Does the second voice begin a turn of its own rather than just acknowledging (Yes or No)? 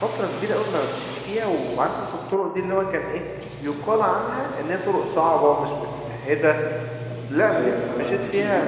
No